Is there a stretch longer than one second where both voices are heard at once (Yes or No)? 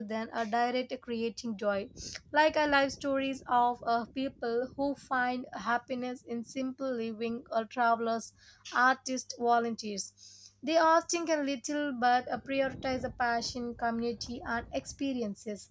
No